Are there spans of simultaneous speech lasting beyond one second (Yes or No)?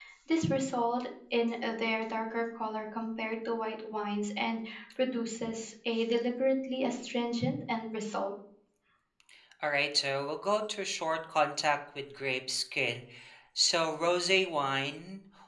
No